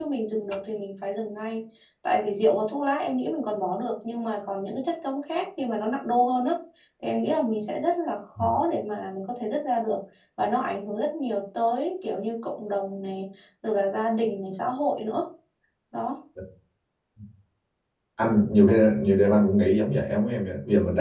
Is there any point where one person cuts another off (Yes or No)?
No